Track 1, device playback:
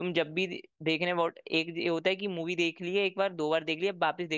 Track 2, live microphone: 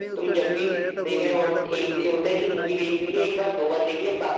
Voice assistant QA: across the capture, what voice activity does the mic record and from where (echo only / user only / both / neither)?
both